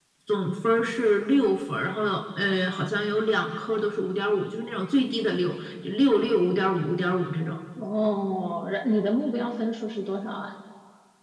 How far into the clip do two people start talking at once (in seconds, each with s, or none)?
none